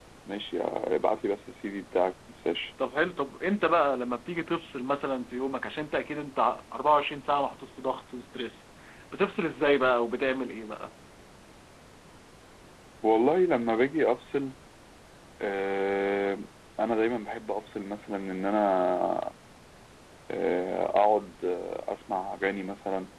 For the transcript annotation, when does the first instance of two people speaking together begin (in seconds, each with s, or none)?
none